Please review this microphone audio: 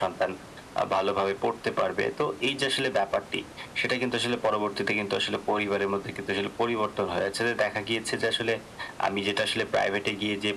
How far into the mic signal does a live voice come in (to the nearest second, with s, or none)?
none